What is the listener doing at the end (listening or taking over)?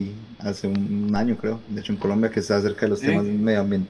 listening